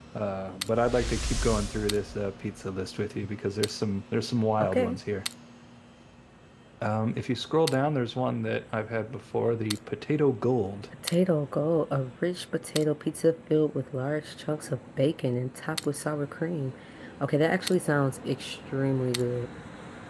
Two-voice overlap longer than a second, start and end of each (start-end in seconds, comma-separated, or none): none